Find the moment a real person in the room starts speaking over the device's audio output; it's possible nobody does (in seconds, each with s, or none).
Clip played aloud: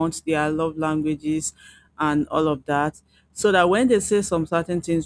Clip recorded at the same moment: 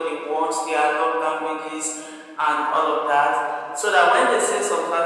none